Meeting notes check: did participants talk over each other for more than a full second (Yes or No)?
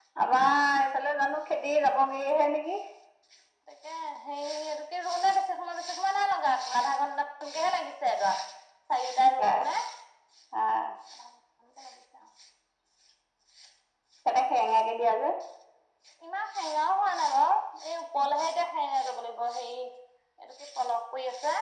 No